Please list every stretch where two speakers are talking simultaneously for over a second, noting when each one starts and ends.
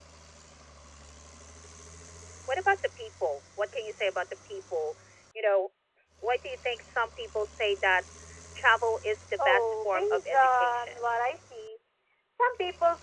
9.4-11.1

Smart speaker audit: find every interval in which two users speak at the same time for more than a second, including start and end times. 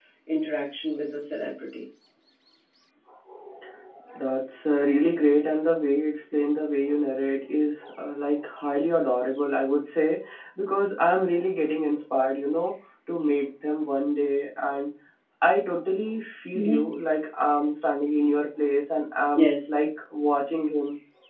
none

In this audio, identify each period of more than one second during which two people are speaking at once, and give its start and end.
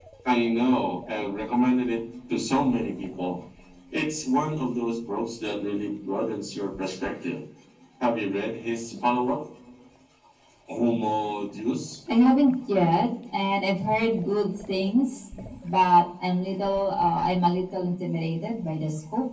none

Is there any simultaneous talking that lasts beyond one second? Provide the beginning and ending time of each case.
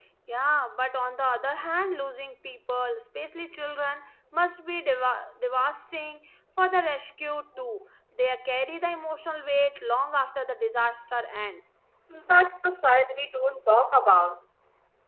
none

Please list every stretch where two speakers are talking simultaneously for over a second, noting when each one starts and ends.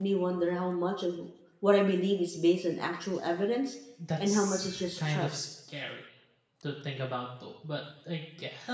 4.2-5.5

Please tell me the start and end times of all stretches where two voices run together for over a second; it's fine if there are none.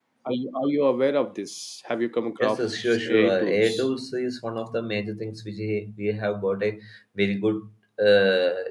2.4-3.9

